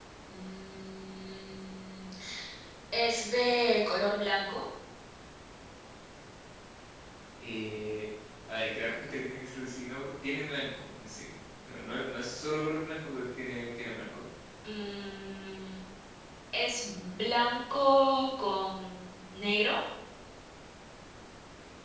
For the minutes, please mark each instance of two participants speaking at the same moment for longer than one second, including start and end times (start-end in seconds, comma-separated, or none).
none